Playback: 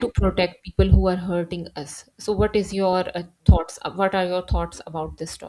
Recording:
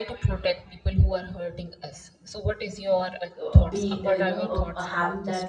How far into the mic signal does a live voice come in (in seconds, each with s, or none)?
3.4 s